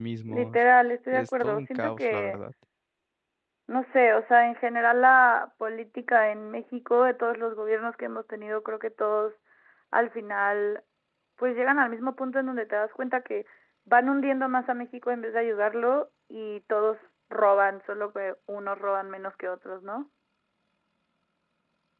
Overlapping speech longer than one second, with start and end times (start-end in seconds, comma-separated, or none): 1.1-2.4